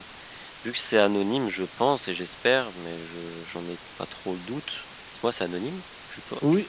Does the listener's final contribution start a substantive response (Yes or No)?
Yes